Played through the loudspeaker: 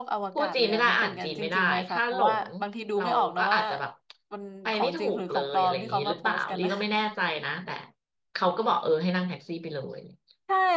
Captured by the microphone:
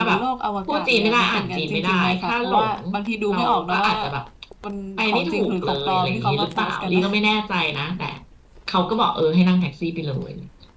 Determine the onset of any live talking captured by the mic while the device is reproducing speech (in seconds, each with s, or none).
none